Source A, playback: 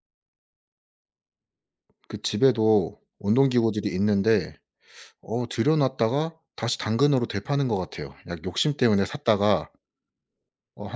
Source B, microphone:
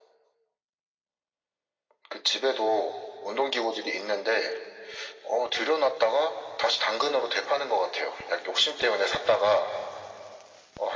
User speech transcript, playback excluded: none

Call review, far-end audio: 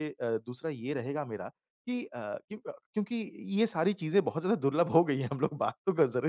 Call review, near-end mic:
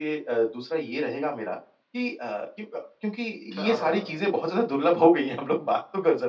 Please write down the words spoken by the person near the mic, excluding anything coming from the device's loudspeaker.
क्या बात!

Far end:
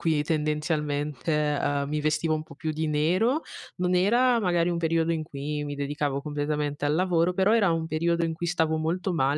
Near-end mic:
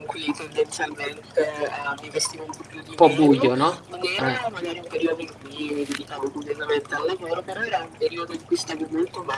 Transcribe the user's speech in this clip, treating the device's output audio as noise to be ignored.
Un po' buio no? Eh.

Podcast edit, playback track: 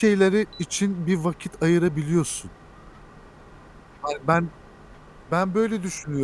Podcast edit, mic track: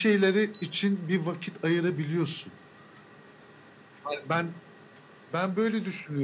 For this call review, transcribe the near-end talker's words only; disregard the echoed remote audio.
none

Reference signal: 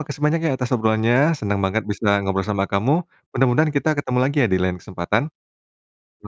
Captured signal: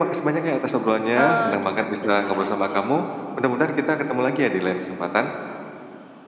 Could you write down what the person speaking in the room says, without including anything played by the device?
eee, "Kita sebentar aja,

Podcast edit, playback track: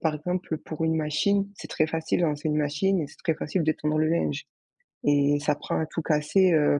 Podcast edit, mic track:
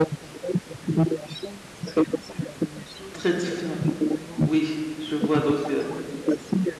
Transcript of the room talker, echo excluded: très différe Oui, je vois, donc, heu

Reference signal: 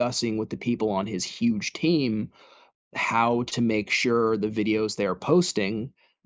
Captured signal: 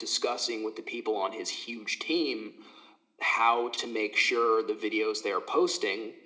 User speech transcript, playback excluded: none

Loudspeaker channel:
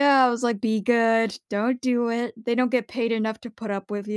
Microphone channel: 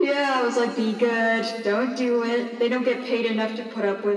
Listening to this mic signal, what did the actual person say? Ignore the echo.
none

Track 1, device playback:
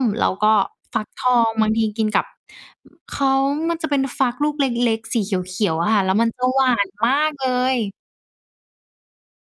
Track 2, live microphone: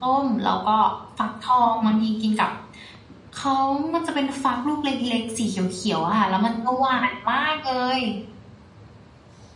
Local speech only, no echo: none

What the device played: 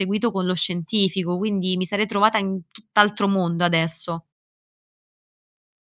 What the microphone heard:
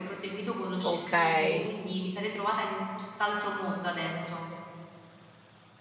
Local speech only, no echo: okay.

